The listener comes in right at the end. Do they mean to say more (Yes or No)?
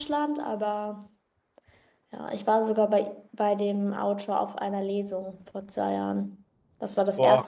No